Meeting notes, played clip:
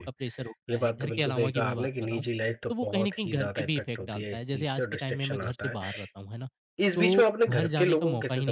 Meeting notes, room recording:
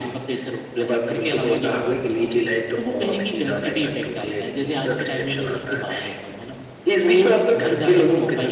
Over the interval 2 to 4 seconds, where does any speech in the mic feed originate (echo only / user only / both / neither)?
echo only